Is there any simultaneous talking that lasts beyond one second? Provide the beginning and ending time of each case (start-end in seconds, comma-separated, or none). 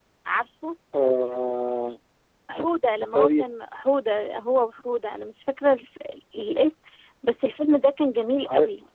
none